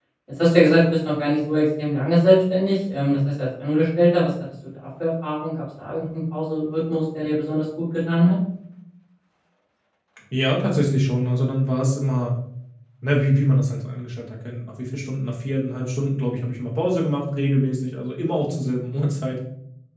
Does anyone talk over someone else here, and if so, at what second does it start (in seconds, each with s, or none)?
none